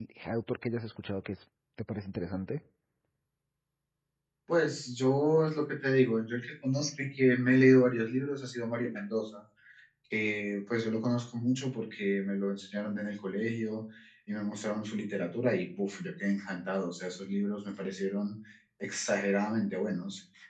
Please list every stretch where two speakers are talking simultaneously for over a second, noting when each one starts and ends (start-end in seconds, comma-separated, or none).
none